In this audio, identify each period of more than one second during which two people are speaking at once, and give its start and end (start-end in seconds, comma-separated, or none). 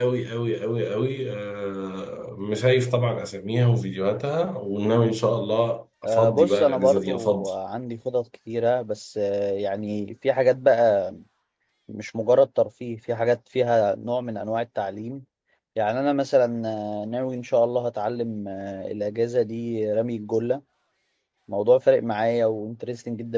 6.0-7.5